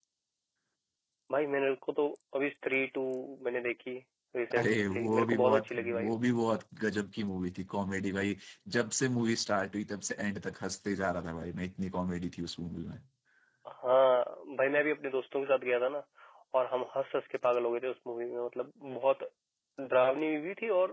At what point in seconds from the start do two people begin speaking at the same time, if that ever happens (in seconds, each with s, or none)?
4.5 s